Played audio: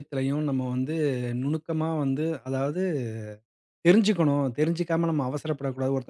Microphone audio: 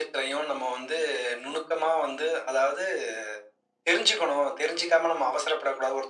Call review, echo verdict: present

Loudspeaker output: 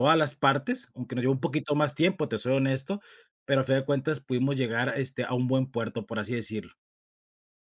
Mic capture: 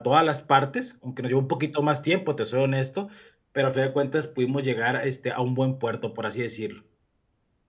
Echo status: present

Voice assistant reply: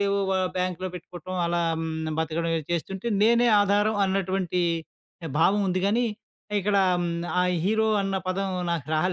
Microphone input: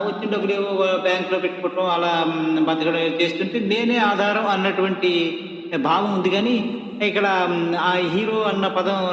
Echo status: present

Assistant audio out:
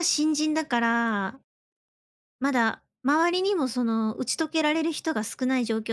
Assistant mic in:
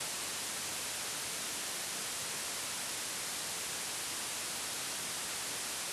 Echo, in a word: none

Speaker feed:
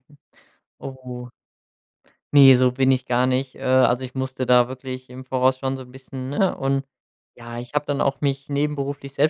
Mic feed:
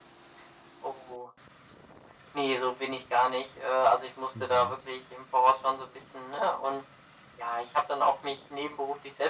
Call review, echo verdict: present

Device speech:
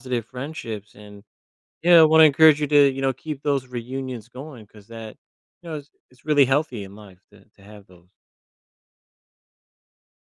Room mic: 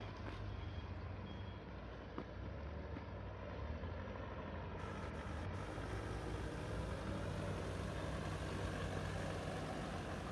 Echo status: none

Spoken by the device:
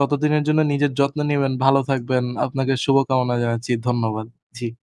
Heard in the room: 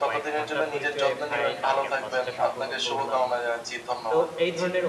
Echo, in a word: present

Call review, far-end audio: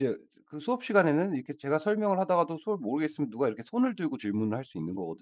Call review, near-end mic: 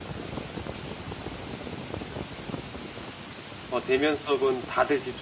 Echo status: none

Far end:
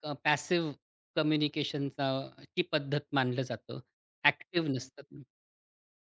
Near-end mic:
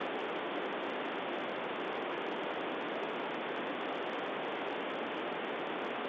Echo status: none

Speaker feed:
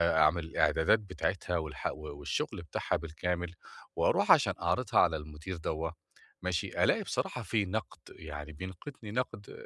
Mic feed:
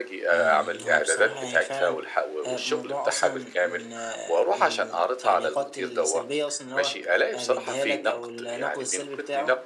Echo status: present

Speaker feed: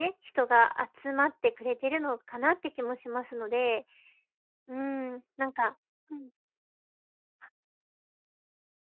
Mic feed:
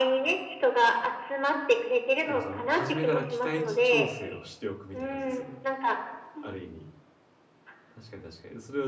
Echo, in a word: present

